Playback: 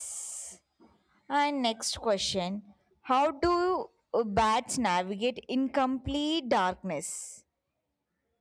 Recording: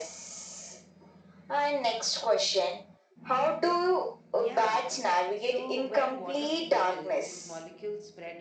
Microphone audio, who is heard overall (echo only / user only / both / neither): both